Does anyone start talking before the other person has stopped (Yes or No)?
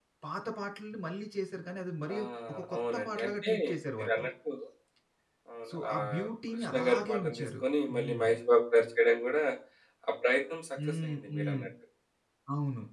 Yes